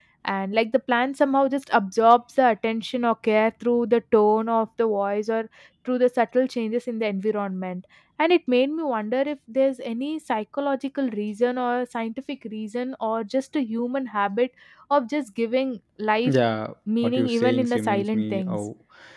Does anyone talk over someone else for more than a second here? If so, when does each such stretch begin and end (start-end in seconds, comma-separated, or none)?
17.0-18.6